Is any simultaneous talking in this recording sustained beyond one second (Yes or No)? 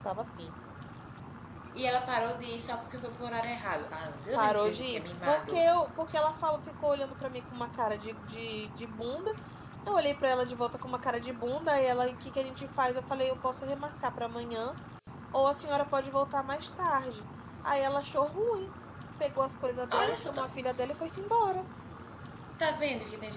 Yes